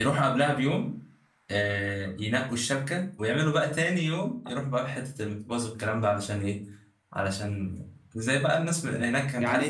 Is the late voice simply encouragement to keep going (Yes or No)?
No